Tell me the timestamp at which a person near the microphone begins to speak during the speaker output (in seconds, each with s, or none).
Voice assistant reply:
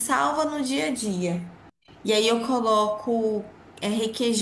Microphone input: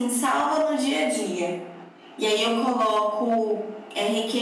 none